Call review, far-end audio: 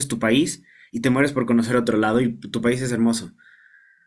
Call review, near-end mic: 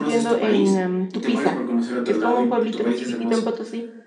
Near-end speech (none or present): present